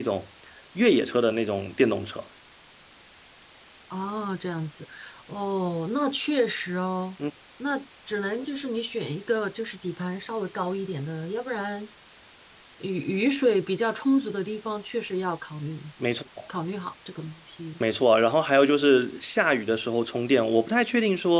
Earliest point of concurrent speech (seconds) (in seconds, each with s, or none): none